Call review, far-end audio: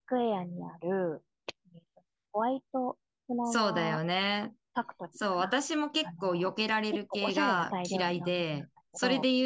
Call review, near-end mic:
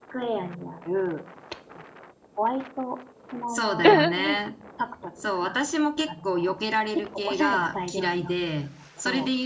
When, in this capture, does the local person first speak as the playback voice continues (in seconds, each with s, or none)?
3.8 s